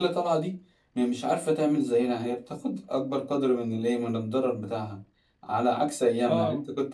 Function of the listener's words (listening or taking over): listening